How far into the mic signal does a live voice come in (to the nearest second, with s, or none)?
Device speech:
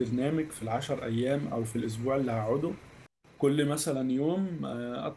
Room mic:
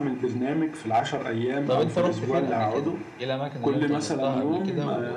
2 s